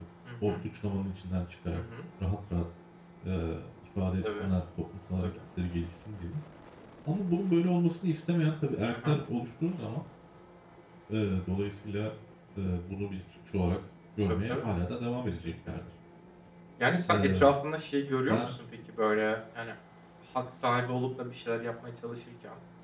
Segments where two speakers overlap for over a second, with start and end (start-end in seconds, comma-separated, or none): none